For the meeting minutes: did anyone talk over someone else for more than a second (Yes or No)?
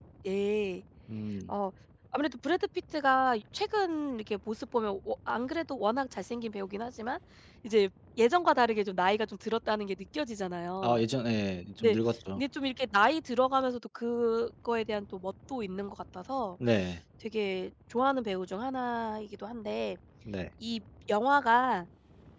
No